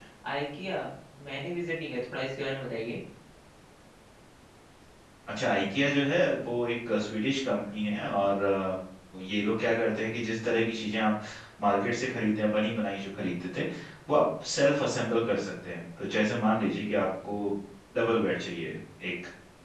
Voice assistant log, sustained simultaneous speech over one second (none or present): none